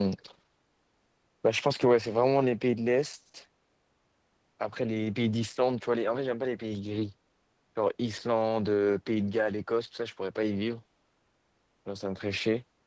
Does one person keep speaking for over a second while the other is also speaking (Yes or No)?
No